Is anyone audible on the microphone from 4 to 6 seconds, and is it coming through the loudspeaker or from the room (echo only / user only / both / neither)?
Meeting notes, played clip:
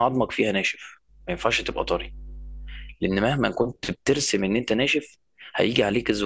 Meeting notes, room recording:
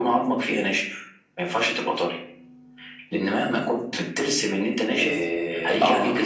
both